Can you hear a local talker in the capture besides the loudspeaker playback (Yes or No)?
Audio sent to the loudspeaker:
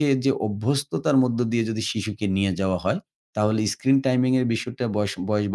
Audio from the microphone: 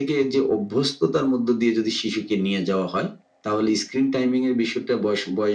No